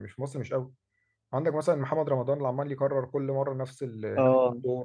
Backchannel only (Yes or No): Yes